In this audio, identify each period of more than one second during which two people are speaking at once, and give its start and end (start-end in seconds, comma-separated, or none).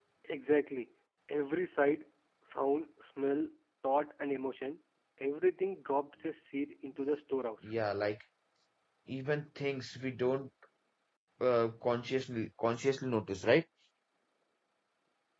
none